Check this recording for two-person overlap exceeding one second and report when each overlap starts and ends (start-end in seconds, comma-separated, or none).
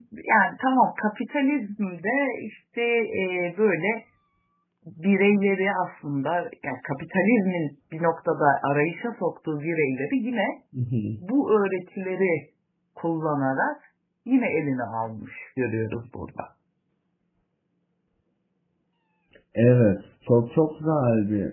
none